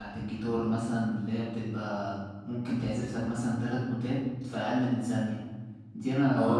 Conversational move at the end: taking over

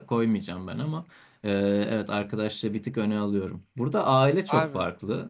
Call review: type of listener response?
listening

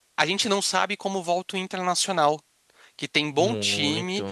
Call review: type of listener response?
listening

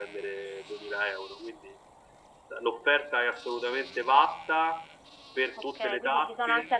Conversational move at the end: taking over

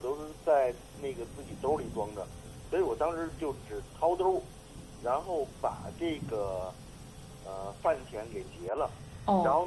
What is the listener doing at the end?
listening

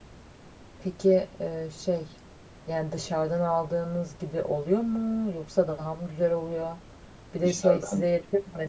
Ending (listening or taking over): listening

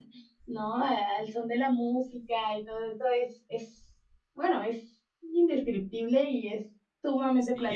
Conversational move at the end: taking over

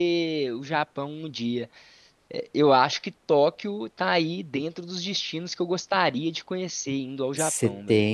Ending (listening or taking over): taking over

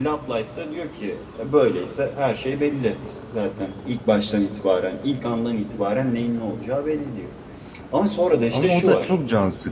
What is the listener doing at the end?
taking over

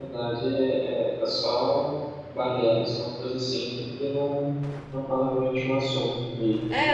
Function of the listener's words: taking over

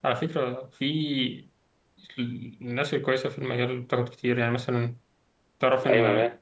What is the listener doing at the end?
listening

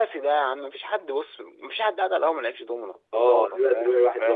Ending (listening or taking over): taking over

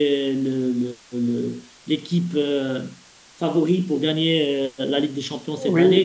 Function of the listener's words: taking over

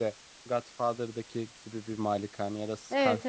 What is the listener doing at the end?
taking over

